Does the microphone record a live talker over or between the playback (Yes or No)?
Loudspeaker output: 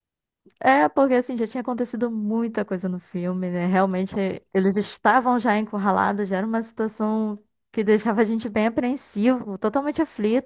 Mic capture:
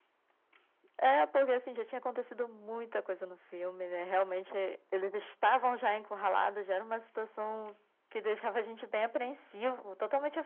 No